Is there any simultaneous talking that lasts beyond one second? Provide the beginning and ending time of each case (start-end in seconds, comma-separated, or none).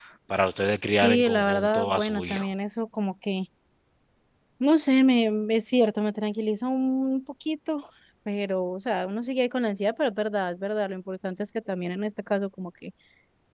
0.9-2.5